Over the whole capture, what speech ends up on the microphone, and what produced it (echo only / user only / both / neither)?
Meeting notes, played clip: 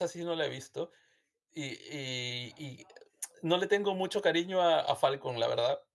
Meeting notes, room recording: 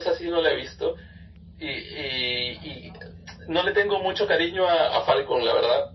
echo only